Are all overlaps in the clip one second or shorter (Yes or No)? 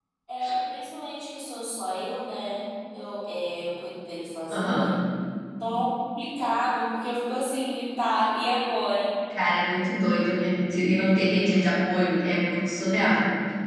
Yes